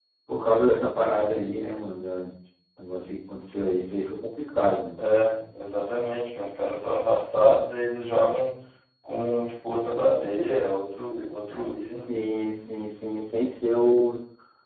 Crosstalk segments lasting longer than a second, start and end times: none

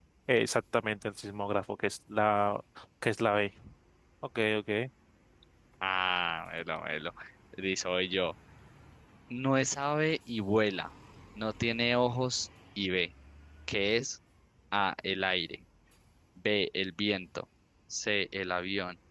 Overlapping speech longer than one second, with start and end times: none

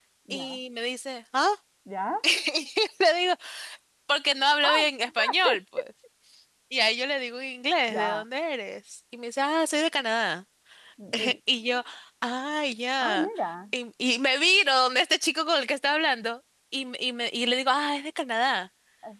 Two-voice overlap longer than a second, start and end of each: none

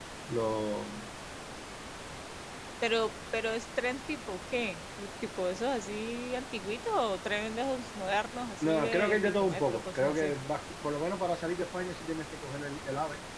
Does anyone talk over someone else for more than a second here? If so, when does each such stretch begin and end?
8.6-10.3

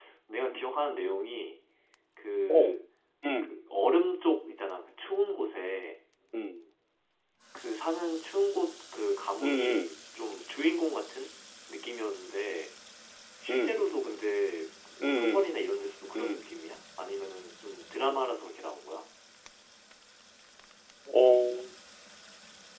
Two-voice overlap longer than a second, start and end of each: none

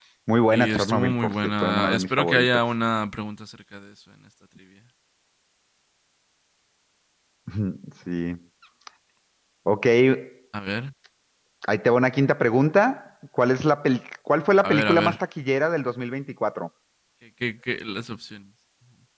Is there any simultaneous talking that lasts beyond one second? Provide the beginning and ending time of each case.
0.5-2.5

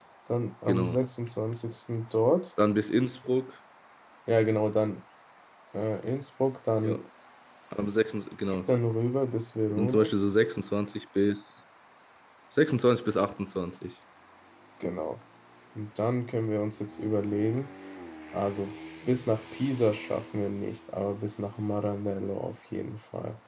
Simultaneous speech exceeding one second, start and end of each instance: none

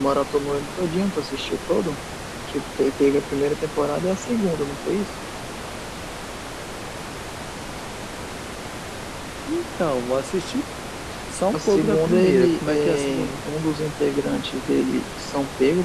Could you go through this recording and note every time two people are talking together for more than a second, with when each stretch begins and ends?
11.5-13.3

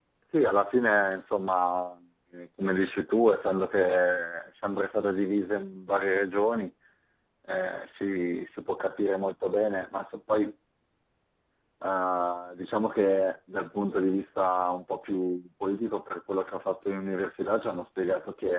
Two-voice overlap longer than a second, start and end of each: none

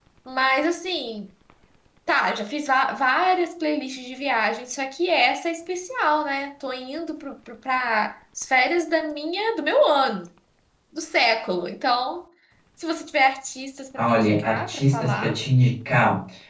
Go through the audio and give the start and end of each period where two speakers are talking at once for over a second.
14.0-15.4

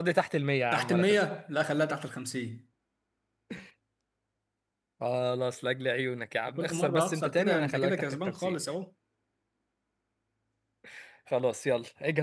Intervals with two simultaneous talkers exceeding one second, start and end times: 6.5-8.6

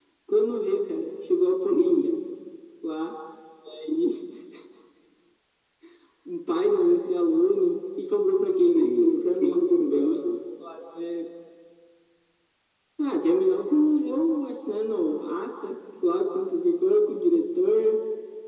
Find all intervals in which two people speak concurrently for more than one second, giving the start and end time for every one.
8.7-10.2

